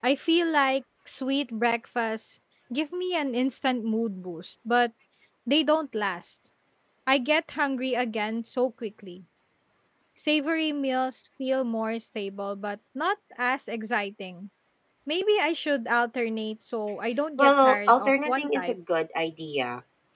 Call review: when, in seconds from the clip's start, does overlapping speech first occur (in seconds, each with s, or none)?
17.4 s